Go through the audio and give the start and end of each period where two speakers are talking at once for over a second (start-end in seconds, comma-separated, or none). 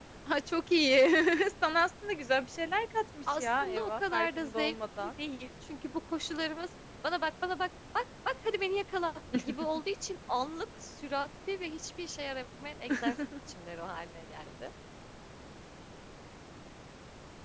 3.3-5.1